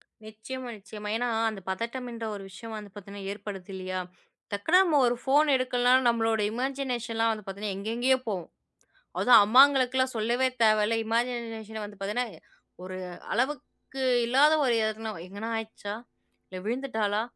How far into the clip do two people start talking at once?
none

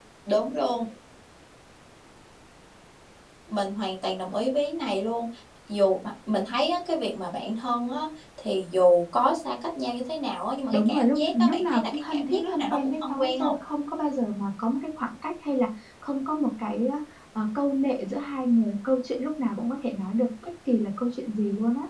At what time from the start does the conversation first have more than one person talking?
10.7 s

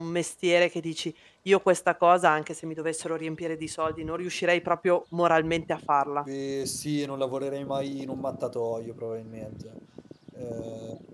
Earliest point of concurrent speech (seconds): none

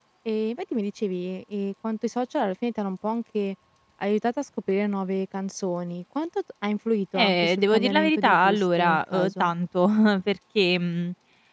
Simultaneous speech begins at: 7.2 s

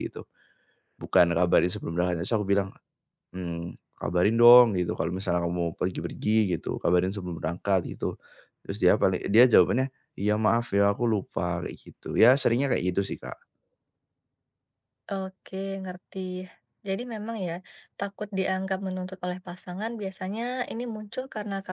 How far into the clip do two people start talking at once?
none

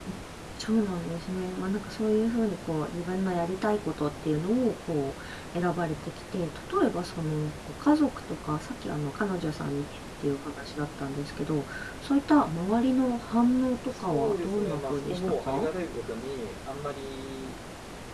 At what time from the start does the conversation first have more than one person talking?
13.9 s

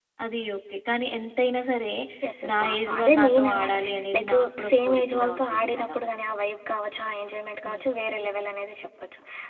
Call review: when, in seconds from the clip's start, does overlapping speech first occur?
2.5 s

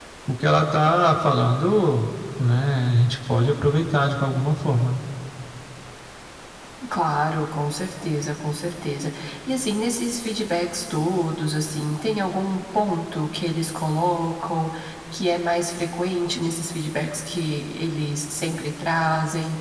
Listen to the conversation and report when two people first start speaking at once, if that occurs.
none

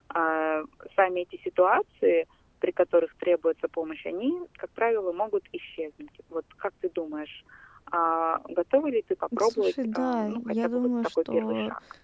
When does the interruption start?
9.3 s

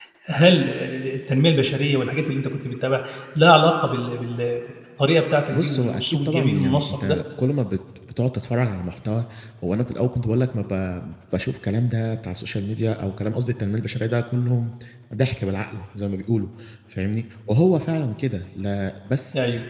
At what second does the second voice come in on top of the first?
5.5 s

